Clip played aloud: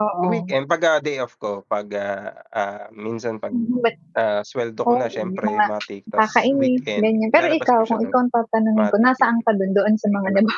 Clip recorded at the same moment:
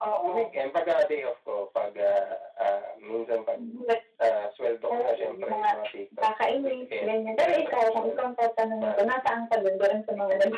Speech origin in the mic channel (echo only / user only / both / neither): echo only